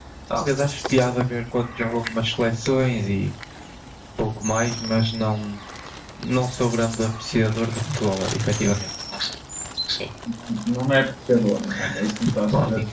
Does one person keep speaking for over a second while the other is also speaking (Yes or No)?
No